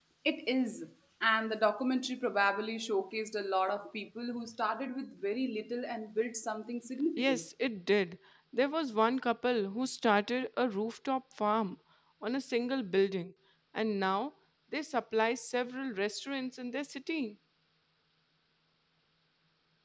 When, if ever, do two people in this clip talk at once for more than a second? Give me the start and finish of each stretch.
none

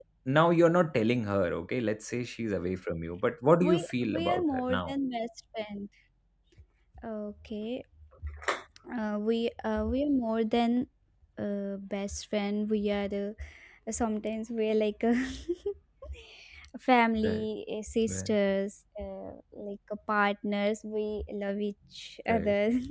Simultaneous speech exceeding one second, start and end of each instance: 3.6-4.9

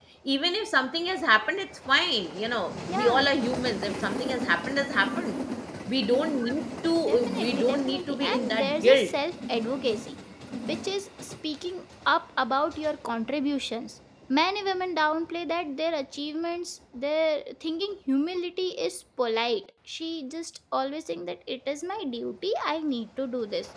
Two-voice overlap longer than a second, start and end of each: 7.0-9.1

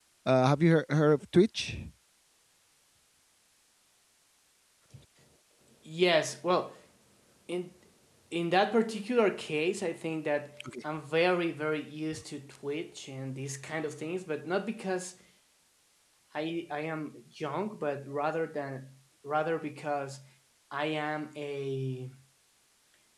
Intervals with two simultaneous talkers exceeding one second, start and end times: none

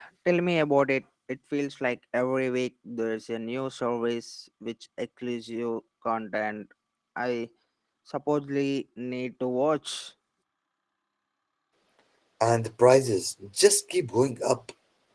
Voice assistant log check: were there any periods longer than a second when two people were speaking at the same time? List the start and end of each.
none

